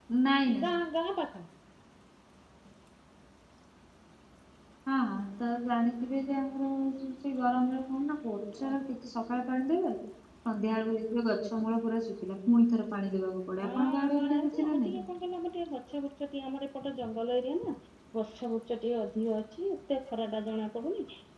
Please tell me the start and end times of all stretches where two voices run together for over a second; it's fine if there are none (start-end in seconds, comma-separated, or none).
13.6-14.9